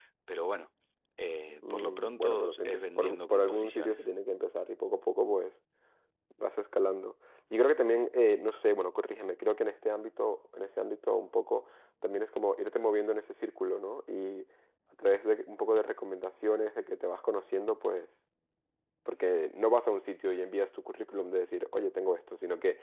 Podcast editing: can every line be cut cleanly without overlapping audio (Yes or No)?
No